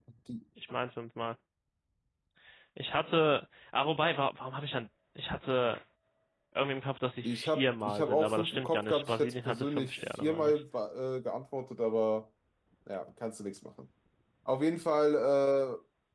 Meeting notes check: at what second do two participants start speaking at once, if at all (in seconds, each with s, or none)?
7.2 s